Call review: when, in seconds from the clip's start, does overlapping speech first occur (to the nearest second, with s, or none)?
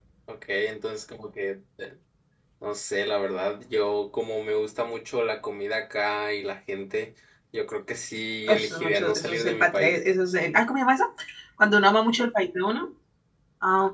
8 s